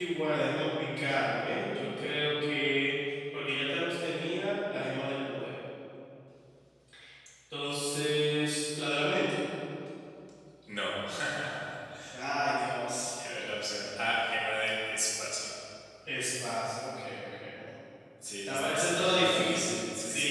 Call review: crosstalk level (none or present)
present